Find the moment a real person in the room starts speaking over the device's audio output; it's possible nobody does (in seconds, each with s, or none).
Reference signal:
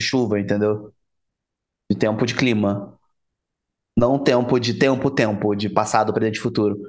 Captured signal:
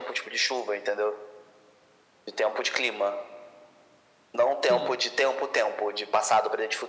4.7 s